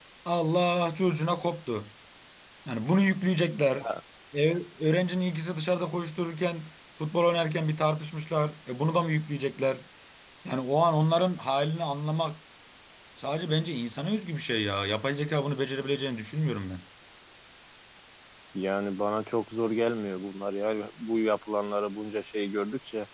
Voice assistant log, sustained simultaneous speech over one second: none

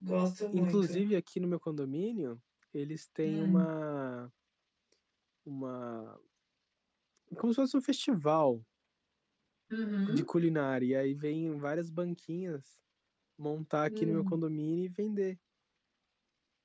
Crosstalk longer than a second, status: none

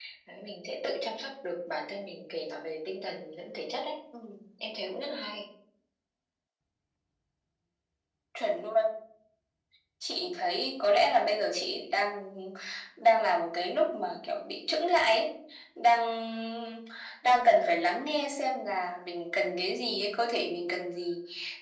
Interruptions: none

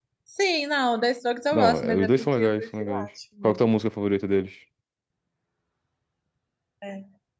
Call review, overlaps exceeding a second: present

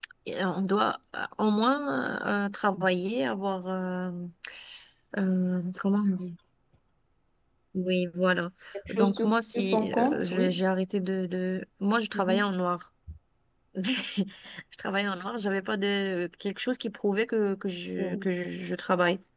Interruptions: present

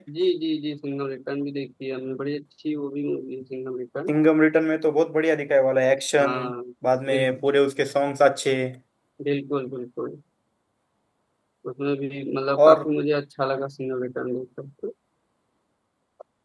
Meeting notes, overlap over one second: none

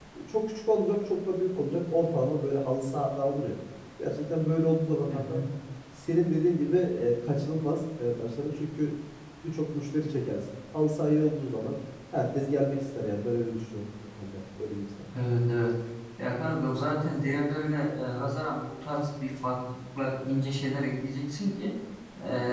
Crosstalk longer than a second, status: none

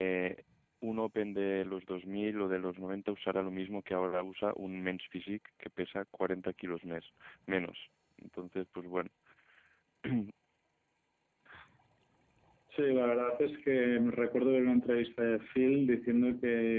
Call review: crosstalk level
none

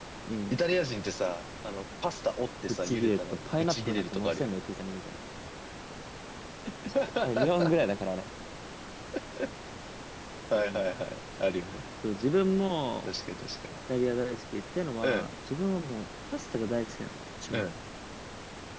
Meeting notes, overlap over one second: present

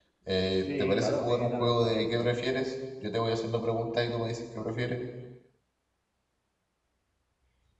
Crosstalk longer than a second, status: present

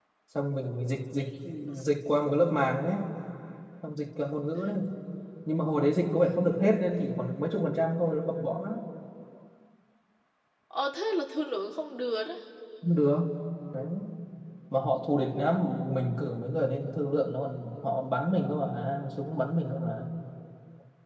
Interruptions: none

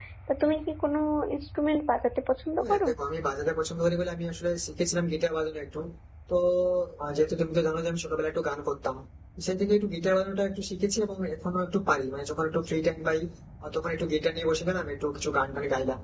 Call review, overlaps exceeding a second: none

